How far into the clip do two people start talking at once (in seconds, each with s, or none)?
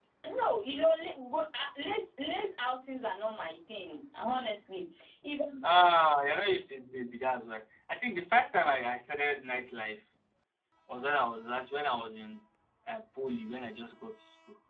none